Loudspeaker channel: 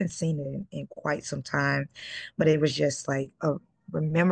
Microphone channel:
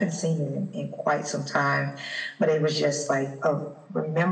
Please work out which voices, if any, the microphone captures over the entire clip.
echo only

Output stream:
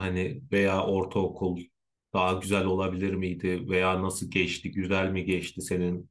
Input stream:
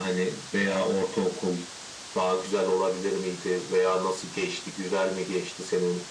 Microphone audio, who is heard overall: echo only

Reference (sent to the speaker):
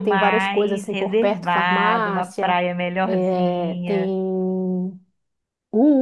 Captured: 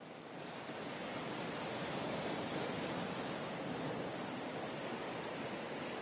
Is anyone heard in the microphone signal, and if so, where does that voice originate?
neither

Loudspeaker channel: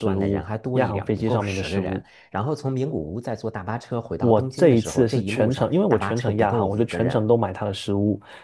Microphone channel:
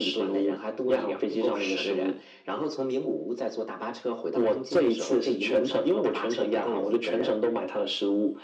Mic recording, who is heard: echo only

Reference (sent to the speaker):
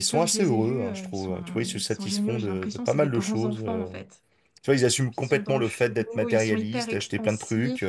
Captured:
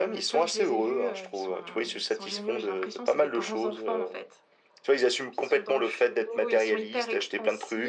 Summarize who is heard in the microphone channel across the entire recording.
echo only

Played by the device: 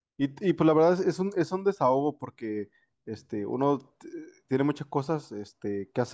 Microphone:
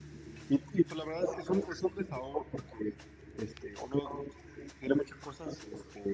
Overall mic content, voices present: echo only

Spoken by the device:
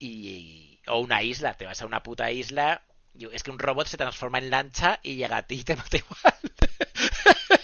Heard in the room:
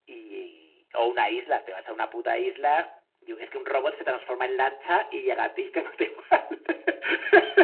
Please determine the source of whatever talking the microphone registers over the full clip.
echo only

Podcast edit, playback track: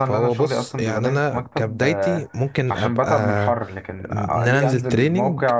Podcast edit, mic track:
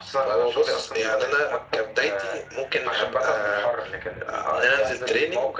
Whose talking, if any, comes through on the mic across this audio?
echo only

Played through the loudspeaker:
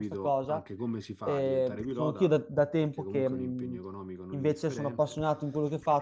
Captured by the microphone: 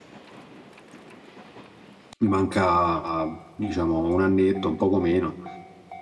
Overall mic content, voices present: user only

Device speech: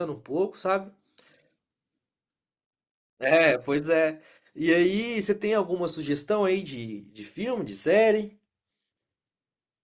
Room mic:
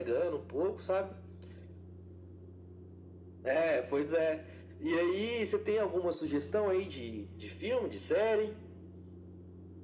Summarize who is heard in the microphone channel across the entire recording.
echo only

